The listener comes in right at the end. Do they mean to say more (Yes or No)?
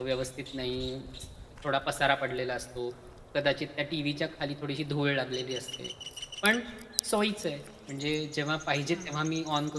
No